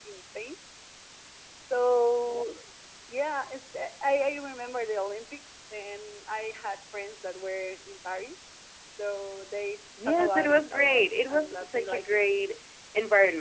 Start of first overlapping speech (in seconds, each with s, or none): 10.0 s